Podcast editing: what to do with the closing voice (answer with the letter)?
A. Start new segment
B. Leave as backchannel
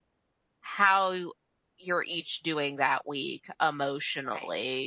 B